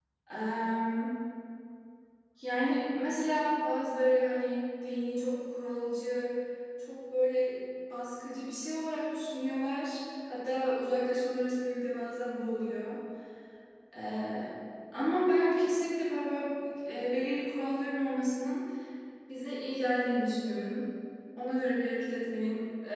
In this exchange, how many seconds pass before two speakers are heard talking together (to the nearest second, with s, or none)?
none